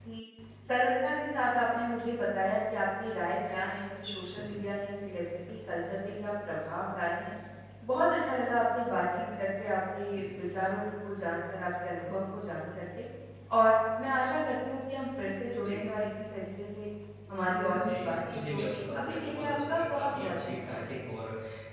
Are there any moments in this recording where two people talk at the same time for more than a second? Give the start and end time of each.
17.7-20.8

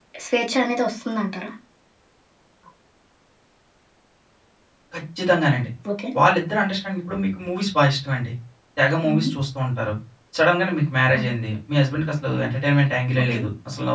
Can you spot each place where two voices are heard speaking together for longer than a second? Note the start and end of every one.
none

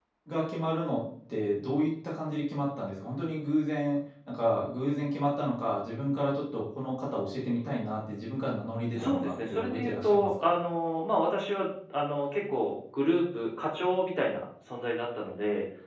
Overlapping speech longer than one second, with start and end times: 9.0-10.5

